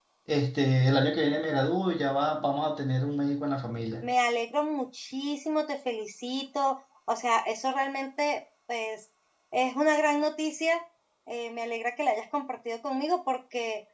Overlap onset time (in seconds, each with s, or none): none